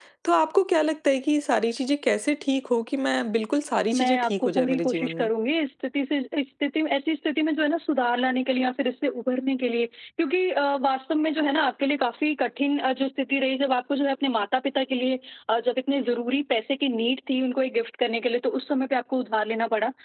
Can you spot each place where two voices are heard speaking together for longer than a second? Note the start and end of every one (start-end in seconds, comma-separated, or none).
4.0-5.3